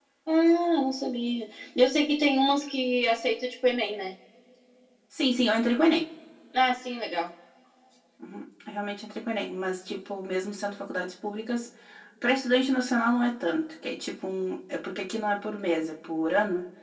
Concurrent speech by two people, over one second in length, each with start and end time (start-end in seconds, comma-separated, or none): none